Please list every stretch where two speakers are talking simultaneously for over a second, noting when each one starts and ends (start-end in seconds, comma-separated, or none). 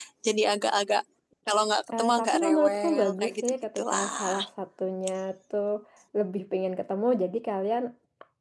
2.0-4.3